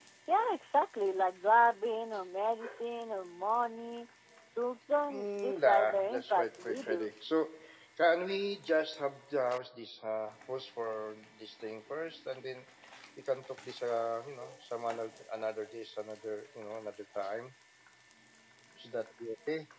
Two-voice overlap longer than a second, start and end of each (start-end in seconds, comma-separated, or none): 5.1-7.1